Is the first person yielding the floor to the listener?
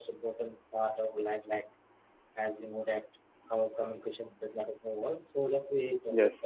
No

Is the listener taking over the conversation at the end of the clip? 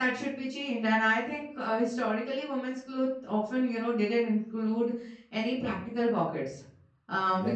No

